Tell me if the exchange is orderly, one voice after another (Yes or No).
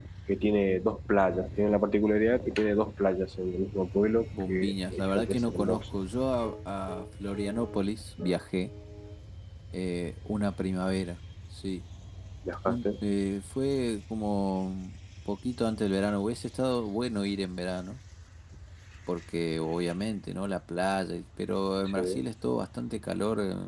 No